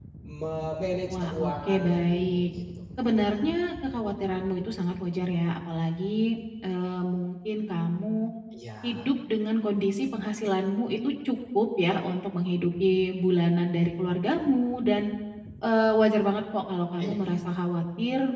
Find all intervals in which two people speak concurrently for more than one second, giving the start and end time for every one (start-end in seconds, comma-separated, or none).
1.1-2.5